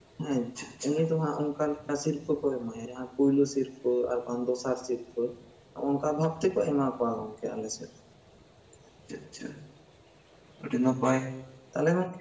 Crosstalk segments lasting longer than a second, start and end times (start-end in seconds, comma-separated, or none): none